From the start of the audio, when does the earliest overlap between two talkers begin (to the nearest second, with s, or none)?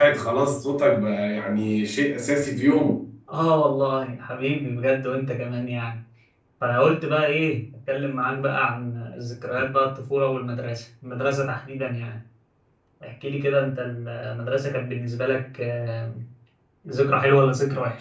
none